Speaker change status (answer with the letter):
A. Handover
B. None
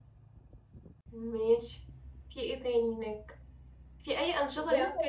B